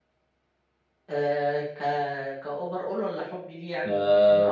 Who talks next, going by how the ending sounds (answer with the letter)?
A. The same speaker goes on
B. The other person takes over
B